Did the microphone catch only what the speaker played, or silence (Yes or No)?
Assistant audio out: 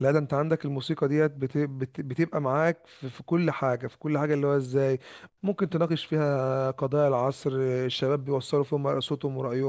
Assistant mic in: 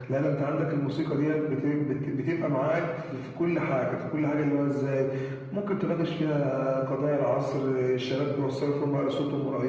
Yes